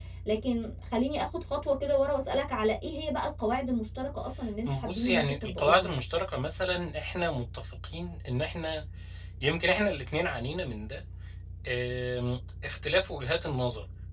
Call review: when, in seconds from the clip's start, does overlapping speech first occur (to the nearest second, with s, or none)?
5 s